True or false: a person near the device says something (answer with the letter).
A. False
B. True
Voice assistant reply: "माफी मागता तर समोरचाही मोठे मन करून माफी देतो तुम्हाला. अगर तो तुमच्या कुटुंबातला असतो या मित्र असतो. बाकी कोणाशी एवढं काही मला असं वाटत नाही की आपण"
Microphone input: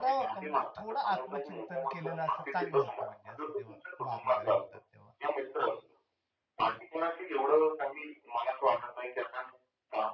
B